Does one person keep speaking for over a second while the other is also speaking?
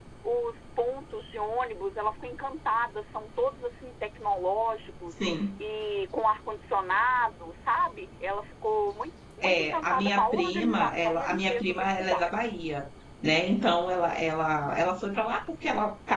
Yes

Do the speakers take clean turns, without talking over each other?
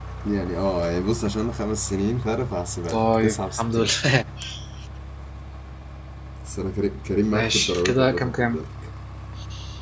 No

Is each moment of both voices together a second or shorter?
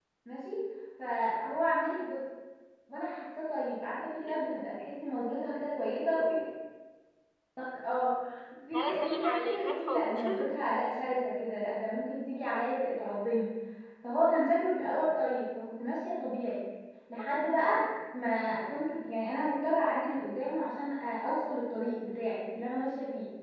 No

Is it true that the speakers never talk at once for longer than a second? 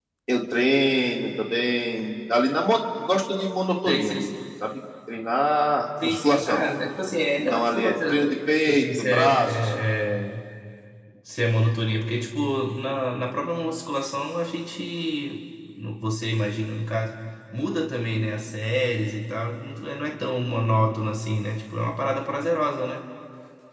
No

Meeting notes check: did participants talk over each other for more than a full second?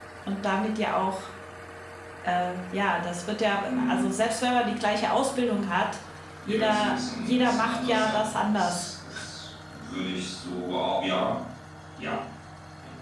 Yes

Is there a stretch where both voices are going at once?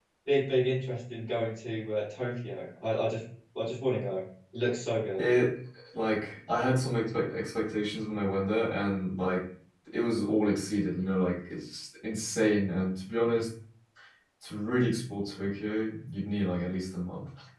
No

